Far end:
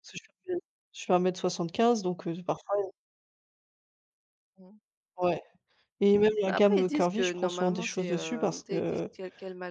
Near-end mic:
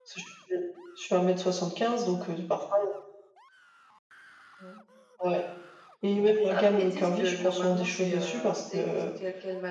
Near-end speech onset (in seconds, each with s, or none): none